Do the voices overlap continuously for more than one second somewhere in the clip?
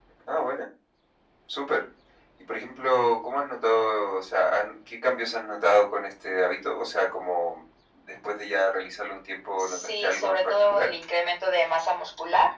Yes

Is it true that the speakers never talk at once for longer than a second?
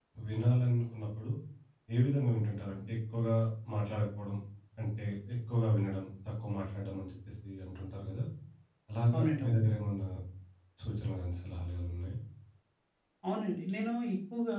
Yes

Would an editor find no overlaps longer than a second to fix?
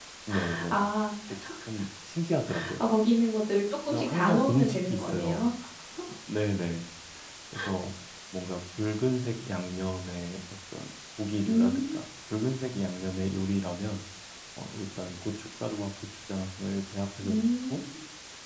No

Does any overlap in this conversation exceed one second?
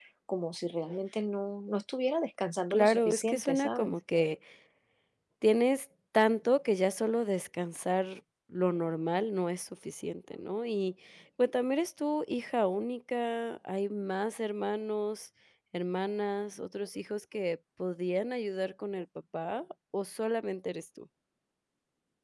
Yes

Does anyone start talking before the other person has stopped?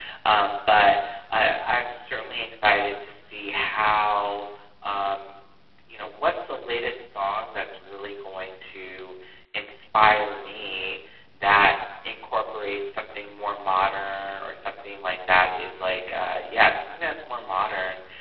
No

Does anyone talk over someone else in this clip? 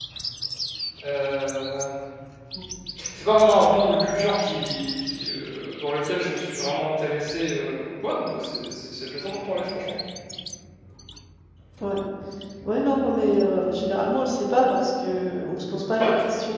No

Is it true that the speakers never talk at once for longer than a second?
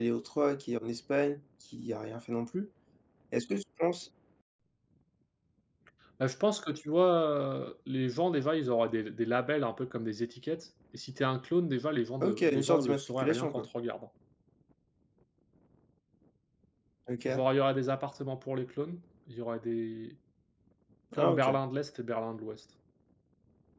No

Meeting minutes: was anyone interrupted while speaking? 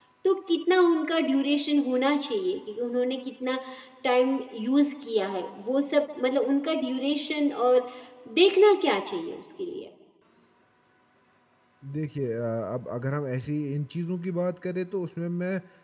No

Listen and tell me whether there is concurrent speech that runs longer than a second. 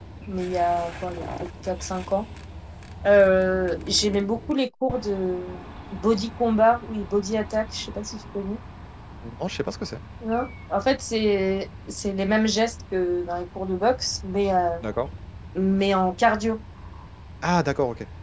No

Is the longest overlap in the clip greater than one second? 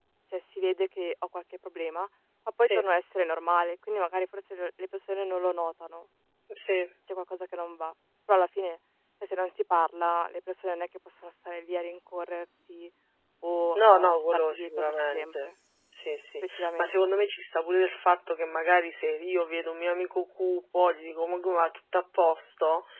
Yes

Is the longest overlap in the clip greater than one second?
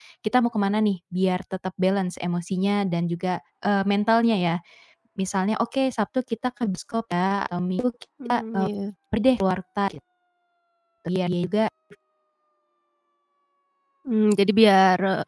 No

